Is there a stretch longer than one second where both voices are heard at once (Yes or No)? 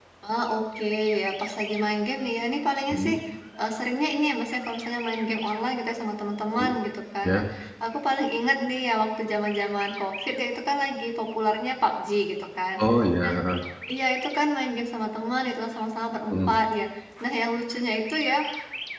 No